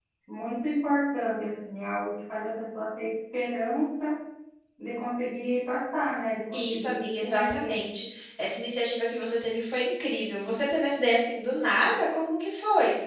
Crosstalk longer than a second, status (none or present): present